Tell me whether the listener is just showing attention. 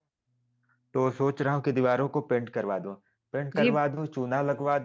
Yes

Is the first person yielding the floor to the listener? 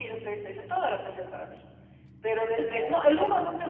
No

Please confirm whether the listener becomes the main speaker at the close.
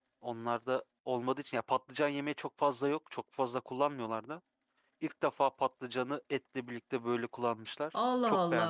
Yes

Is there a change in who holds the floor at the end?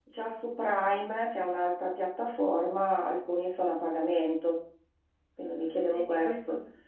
Yes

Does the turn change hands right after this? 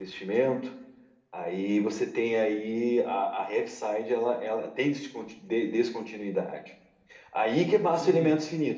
No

